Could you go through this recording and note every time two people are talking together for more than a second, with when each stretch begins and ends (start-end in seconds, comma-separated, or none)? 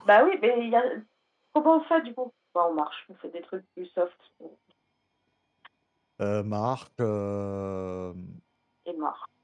none